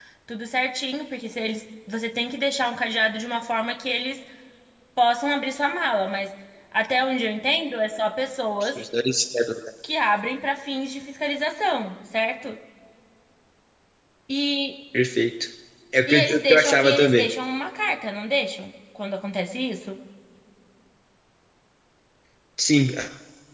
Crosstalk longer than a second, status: present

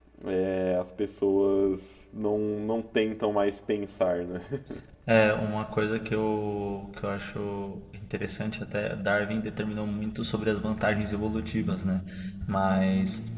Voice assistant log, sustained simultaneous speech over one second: none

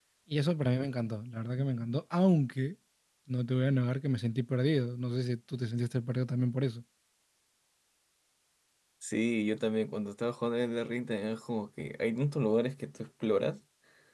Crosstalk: none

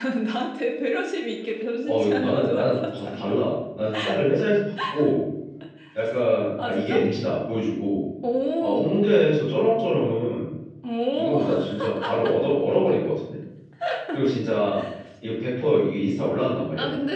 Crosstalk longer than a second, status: present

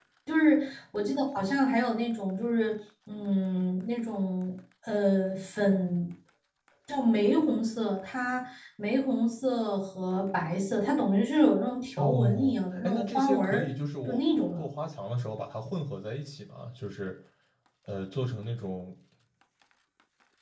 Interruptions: present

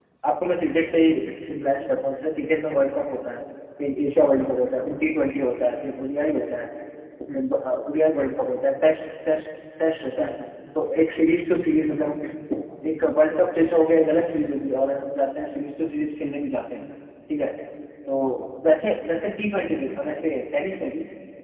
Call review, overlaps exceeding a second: none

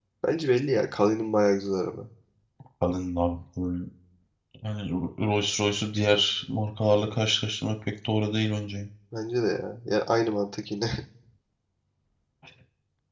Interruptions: none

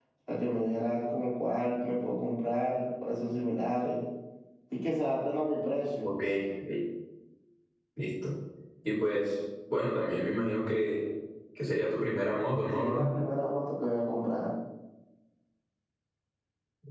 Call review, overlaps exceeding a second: none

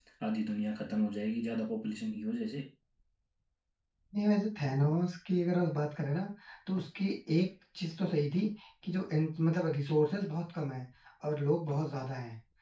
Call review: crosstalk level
none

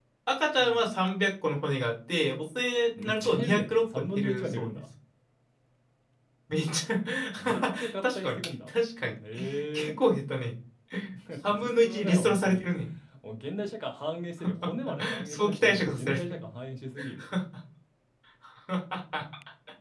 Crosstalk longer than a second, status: present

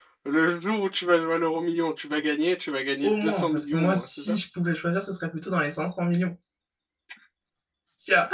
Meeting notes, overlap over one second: present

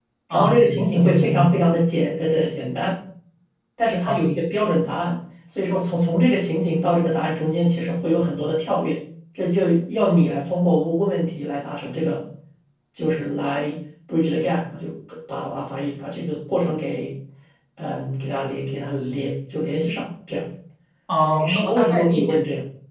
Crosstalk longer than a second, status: present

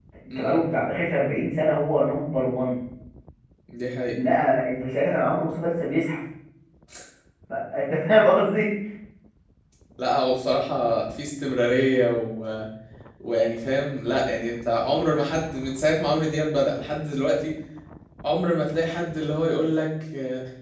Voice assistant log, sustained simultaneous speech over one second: none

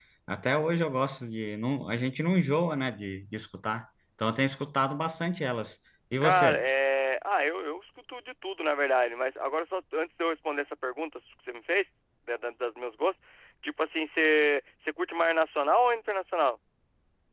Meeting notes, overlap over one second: none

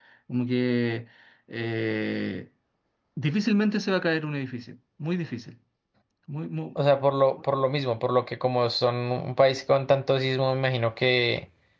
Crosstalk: none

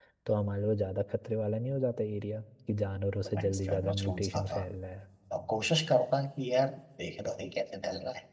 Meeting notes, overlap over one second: present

